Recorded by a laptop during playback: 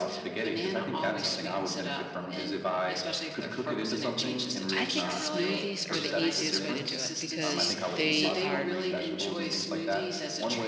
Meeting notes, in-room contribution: present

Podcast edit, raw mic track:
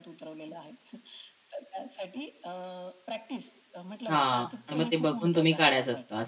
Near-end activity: present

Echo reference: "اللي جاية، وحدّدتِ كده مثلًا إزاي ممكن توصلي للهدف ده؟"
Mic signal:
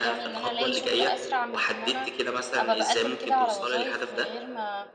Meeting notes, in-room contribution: present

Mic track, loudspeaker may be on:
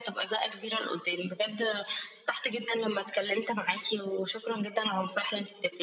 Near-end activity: none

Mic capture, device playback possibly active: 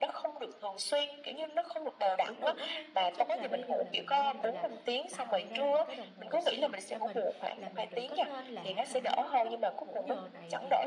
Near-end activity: present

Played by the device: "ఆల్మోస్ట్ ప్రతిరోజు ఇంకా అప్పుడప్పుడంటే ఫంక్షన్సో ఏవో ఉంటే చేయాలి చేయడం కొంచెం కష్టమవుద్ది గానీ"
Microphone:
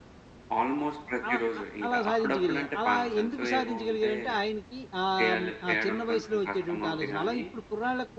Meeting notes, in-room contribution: present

